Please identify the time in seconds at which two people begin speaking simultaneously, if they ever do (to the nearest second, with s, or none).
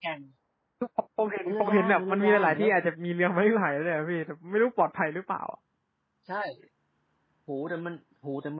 1 s